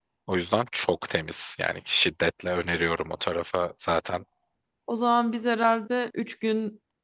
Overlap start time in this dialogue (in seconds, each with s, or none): none